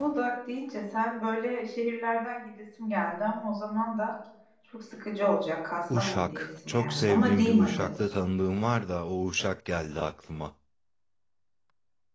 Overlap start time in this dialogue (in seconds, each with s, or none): 5.9 s